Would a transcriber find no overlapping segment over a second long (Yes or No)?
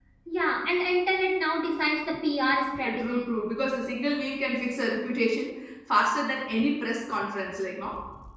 Yes